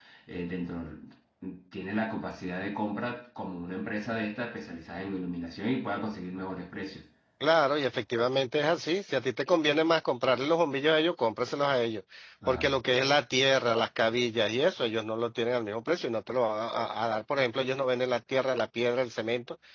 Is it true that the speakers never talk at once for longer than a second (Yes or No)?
Yes